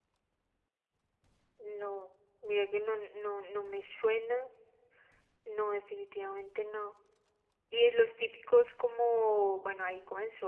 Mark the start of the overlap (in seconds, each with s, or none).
none